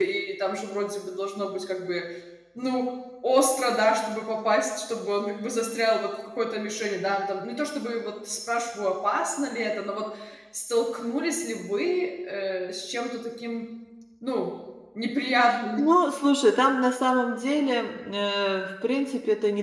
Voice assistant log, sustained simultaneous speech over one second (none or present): none